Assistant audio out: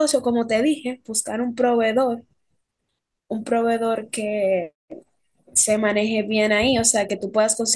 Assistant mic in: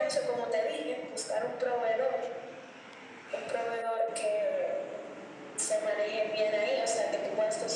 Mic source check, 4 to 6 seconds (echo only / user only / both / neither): echo only